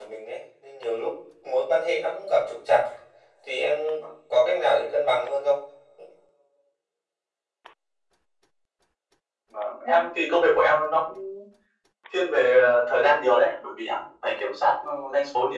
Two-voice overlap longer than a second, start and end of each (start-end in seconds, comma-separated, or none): none